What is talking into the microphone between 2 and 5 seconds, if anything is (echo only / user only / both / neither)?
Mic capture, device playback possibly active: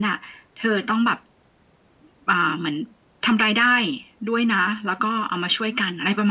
echo only